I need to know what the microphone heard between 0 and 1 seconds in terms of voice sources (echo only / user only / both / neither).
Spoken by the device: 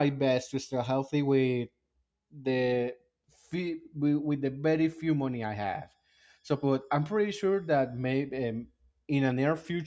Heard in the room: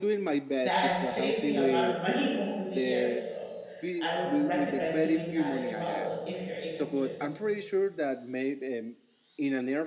both